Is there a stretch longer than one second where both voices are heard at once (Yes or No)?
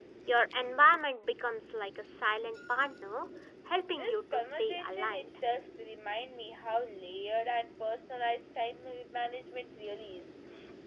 Yes